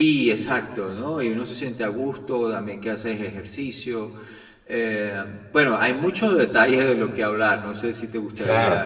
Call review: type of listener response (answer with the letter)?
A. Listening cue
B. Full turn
B